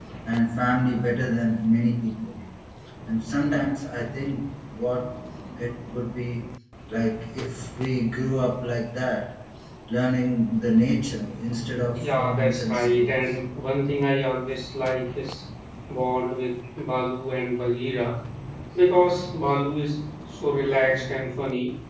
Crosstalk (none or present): present